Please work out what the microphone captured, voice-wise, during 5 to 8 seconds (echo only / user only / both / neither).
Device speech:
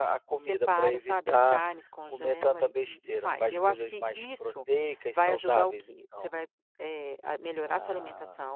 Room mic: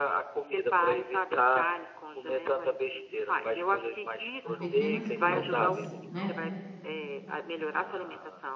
both